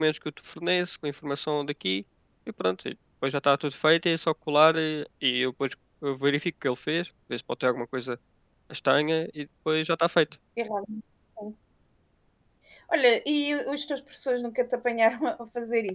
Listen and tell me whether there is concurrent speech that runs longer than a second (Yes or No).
No